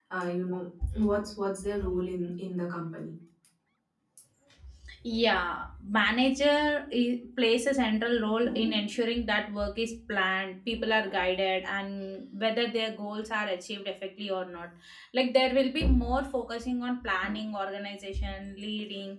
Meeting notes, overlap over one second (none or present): none